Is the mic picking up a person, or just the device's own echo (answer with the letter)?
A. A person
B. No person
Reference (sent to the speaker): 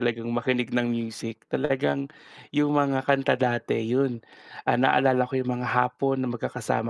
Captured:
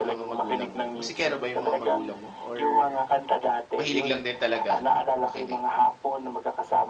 A